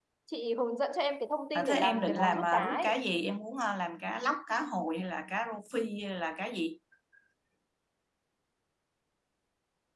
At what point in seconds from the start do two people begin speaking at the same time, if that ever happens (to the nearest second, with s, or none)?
2 s